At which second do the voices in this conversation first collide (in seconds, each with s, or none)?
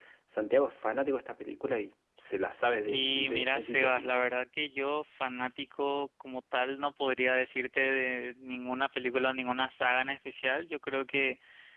2.9 s